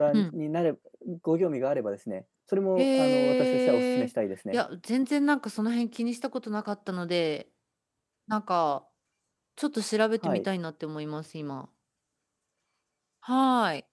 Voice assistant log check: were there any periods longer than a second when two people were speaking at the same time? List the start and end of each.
2.8-4.1

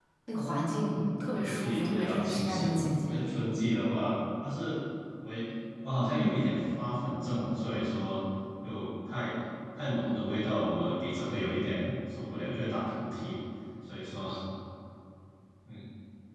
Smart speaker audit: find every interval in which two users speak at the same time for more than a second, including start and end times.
1.4-3.2

